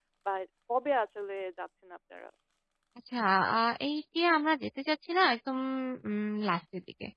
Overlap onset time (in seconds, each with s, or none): none